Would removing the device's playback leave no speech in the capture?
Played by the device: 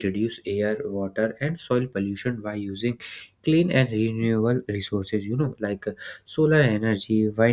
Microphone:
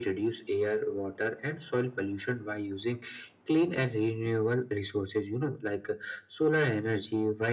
Yes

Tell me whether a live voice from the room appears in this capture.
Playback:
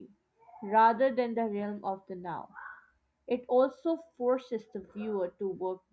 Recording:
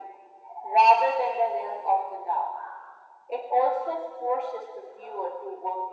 No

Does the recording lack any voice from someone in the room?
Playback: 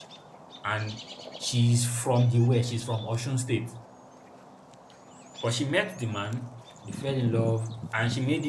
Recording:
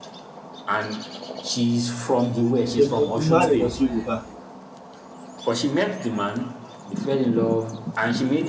No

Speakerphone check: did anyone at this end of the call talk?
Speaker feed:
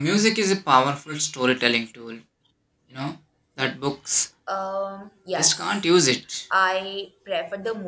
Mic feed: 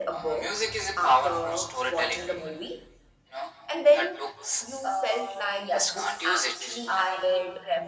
Yes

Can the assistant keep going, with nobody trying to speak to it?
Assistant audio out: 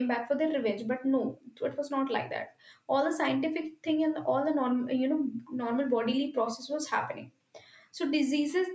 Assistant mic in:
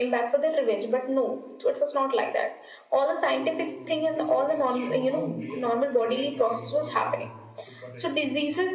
No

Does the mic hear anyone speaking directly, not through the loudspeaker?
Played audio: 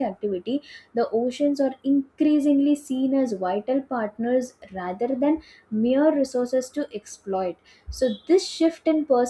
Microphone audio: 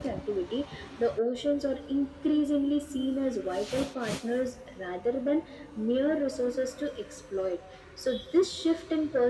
No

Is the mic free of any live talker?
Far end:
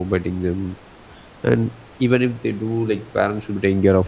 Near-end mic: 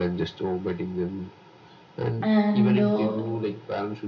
No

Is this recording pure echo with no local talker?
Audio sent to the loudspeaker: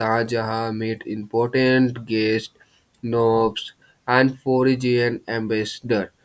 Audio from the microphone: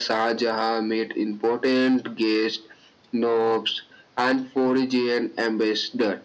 Yes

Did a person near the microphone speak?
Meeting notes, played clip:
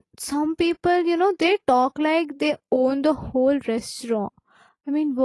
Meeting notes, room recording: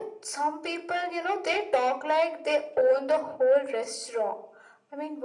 No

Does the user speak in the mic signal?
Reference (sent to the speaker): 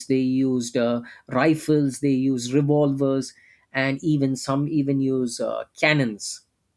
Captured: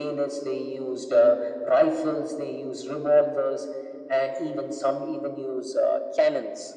No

